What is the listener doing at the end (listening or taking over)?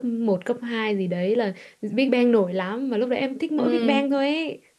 listening